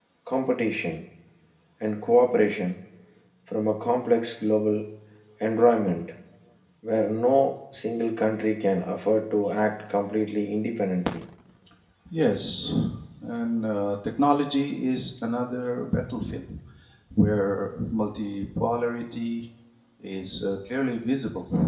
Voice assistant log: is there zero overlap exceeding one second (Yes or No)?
Yes